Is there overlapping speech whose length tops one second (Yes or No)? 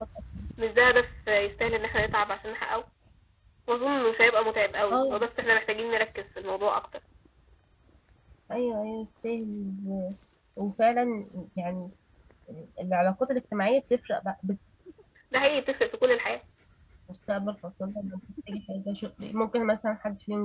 No